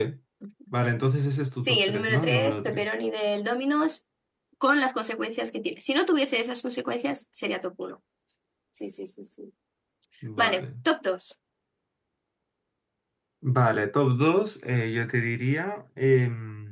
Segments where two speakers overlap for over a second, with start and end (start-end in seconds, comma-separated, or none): 1.6-2.8